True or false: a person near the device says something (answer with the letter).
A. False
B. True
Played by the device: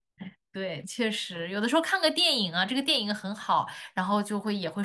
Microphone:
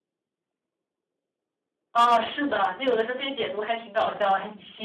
B